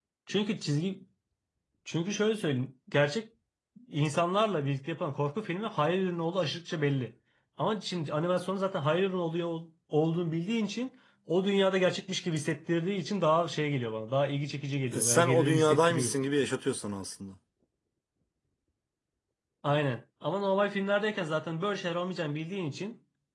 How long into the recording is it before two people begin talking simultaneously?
14.9 s

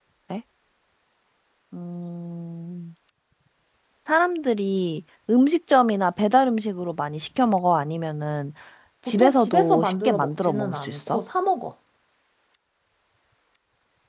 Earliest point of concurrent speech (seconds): 9.1 s

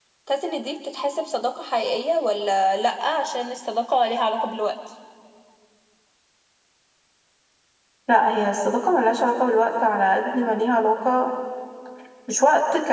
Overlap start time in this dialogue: none

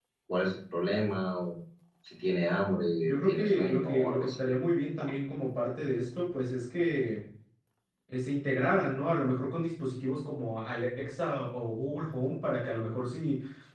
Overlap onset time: 3.0 s

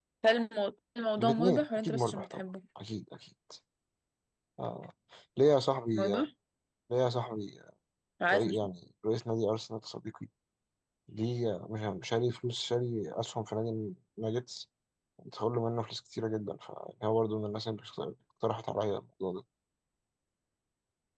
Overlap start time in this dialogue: 1.2 s

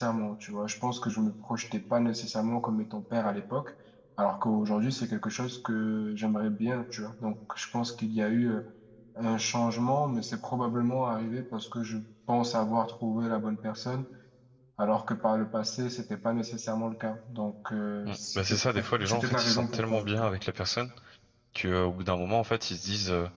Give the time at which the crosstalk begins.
18.0 s

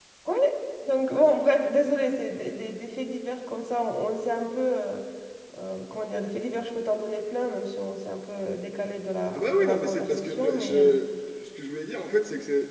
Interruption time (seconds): 9.3 s

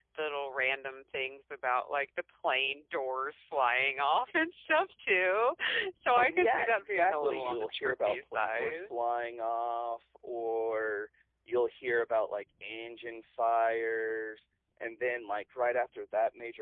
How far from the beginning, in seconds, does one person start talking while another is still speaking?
6.2 s

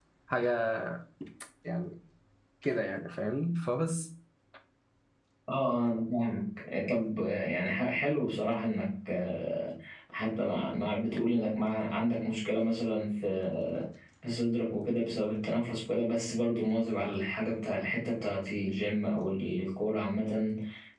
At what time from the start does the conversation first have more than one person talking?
none

